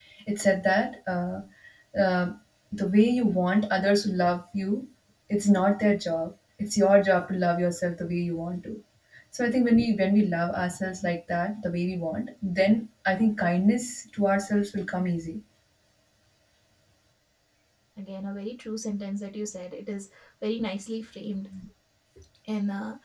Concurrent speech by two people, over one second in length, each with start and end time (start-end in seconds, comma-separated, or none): none